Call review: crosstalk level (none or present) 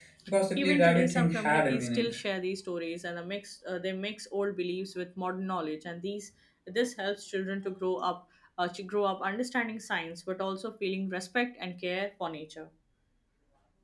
present